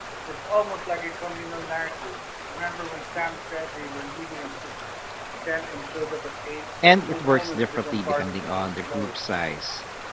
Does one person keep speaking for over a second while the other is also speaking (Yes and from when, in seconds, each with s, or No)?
Yes, from 6.8 s